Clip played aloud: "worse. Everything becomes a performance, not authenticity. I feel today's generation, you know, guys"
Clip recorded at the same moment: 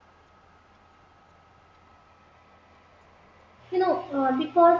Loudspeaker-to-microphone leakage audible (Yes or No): No